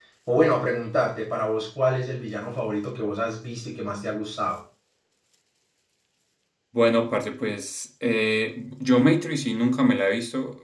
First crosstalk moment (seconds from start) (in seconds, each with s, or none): none